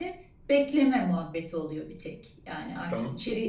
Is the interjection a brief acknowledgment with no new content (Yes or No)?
Yes